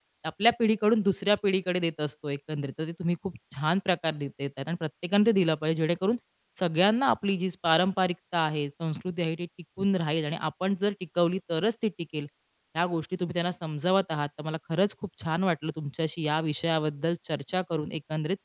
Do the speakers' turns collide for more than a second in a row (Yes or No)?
No